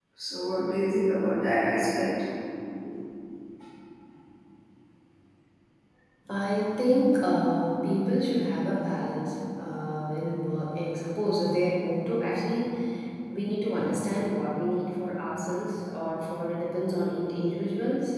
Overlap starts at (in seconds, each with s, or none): none